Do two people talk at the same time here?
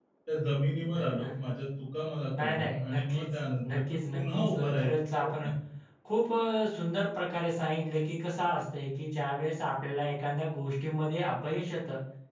Yes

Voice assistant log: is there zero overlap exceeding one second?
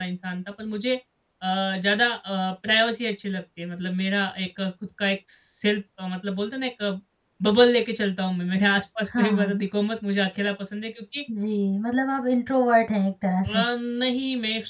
Yes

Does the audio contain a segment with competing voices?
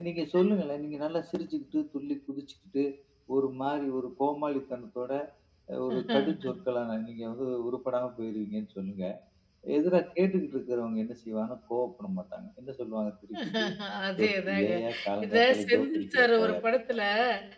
Yes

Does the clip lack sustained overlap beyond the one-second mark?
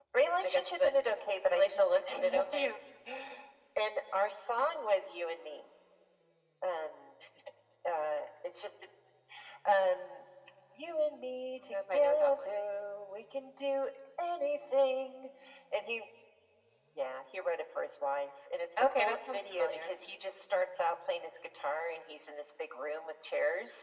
No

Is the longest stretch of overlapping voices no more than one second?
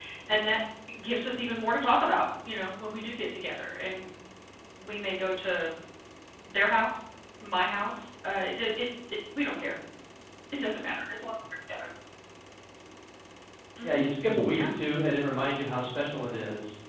Yes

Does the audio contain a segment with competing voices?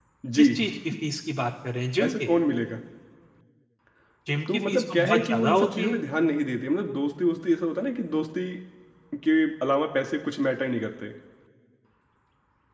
Yes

